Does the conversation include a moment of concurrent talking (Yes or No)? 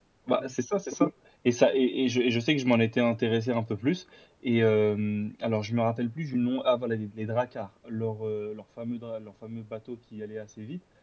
No